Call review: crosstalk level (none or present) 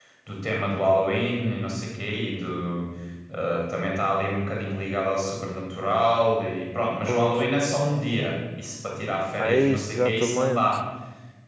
present